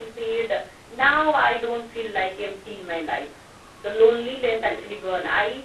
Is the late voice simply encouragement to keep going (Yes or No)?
Yes